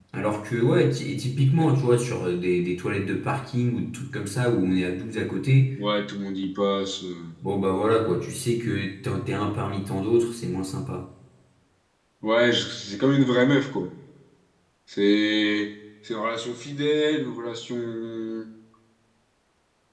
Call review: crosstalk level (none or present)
none